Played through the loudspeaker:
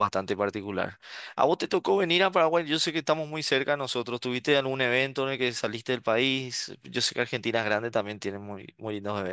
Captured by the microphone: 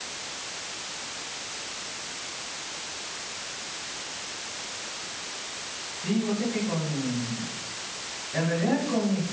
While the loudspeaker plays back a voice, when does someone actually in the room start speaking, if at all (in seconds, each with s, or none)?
5.9 s